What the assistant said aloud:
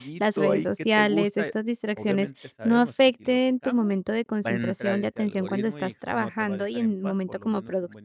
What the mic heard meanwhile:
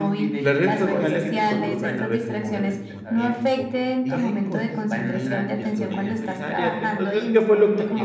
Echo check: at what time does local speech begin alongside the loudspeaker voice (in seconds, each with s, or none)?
0.4 s